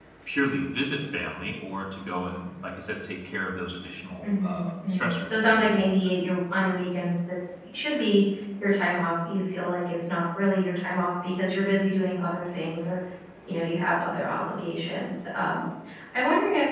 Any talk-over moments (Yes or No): Yes